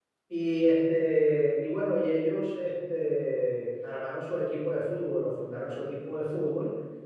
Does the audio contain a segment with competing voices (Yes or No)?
No